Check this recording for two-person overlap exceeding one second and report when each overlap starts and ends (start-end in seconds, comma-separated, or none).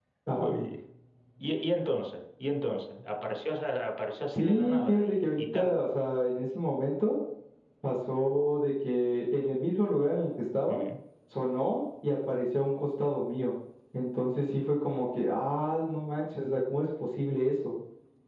4.3-5.8